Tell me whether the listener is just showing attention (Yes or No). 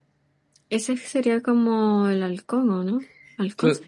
No